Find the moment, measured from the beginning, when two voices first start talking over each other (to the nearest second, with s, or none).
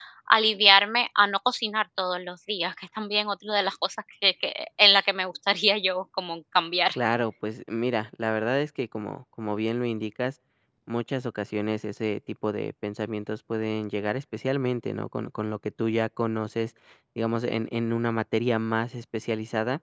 none